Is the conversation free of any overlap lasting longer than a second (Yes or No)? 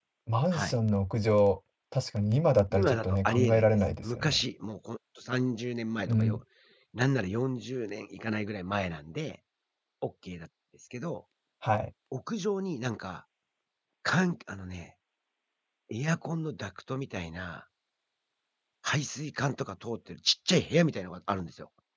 No